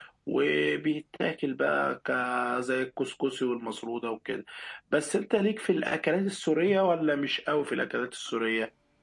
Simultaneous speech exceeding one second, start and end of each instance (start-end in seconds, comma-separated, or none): none